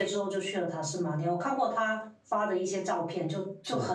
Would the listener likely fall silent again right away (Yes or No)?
Yes